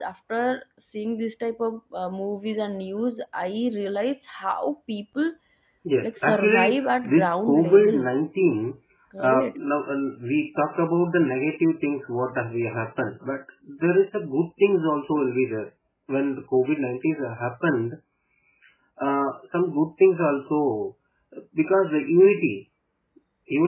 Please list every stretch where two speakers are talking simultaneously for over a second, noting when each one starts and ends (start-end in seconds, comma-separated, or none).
6.1-8.0